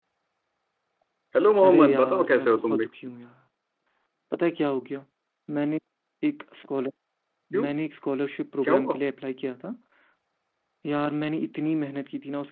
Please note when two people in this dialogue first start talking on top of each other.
2 s

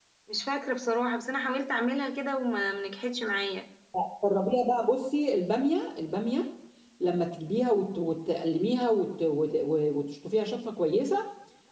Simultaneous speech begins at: none

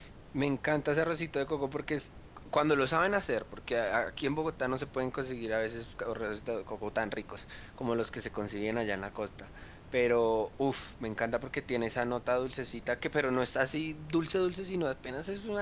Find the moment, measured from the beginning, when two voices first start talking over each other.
none

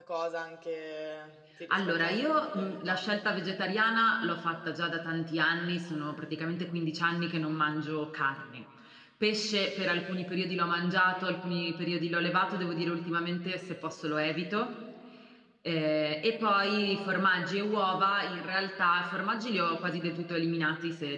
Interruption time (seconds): 2 s

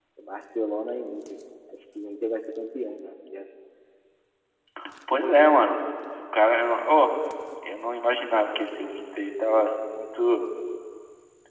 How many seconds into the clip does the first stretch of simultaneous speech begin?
none

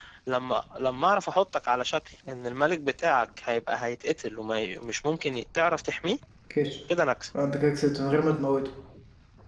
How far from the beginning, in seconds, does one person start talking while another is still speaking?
none

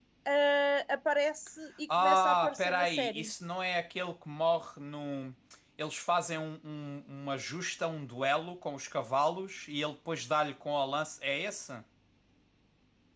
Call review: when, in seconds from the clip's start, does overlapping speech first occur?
2 s

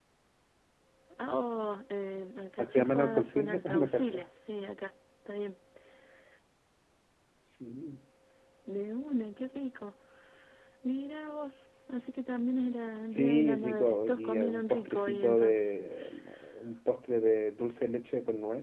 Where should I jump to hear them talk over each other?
3 s

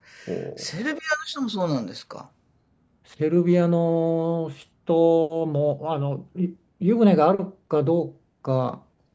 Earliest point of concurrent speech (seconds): none

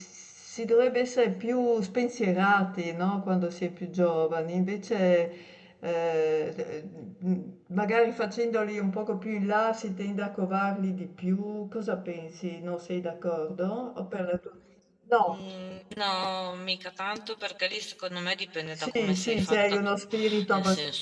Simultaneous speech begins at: 19 s

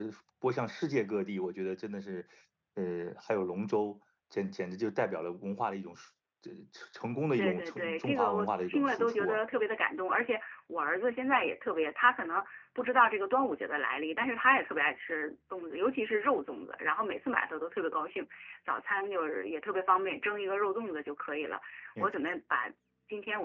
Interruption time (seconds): 7 s

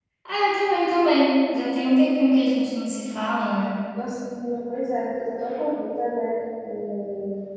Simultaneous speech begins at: none

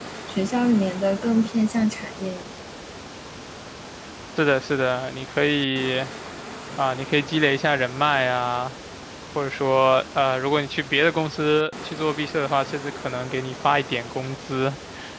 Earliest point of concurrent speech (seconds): none

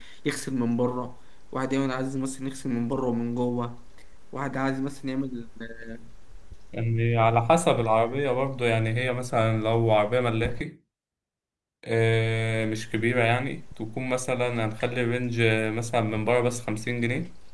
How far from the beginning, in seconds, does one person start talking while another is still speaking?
none

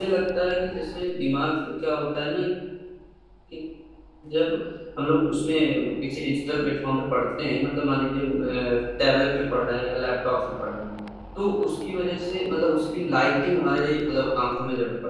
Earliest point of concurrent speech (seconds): none

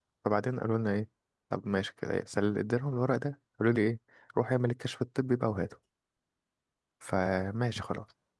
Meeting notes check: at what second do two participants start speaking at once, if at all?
none

